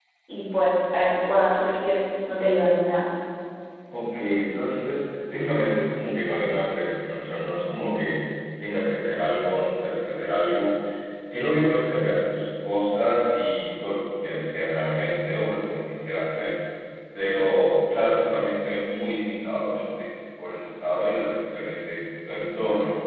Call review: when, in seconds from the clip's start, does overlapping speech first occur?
none

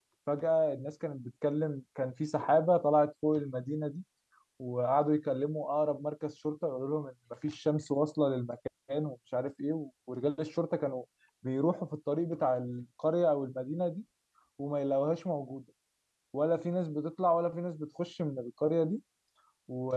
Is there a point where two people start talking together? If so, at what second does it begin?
none

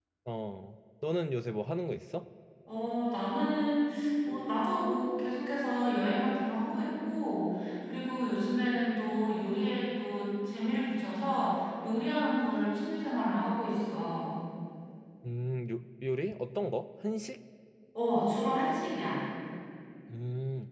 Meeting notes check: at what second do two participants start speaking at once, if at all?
none

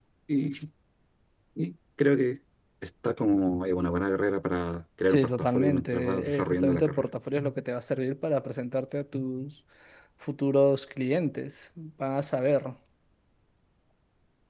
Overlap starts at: 5.1 s

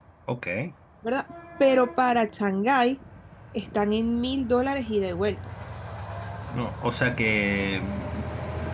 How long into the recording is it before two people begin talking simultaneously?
none

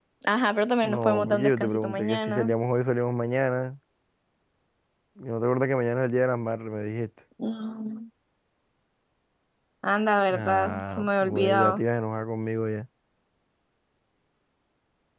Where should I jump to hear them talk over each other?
0.8 s

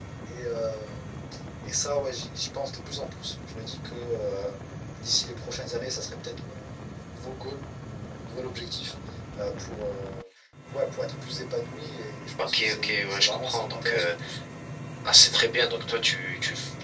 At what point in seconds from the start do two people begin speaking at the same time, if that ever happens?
12.4 s

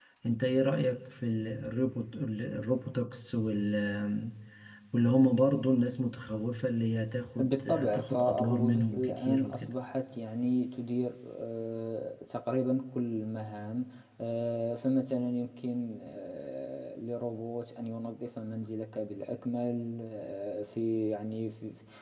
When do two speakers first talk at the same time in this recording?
7.4 s

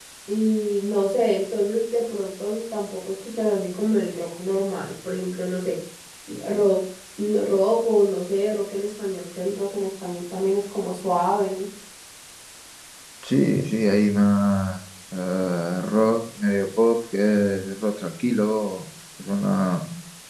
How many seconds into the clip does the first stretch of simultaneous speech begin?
none

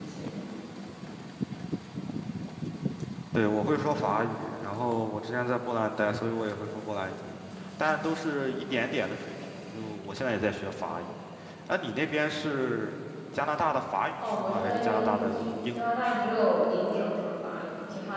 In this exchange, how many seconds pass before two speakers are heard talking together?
14.2 s

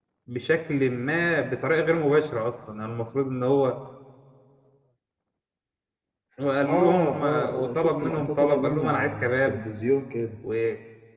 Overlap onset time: 6.7 s

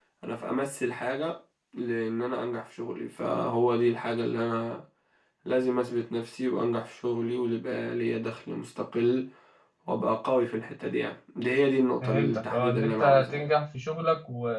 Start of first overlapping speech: 12.0 s

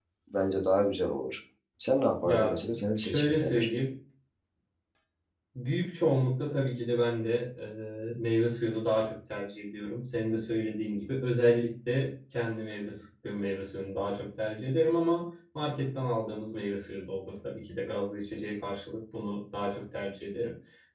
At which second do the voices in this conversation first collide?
2.2 s

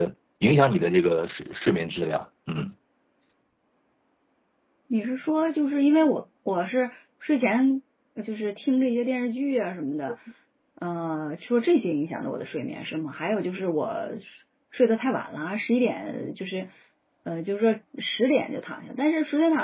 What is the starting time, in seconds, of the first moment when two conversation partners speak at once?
none

